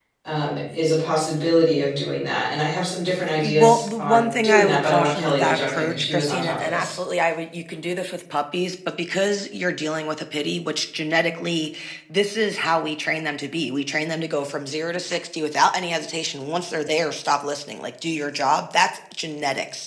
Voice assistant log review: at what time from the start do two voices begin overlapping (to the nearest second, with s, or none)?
3 s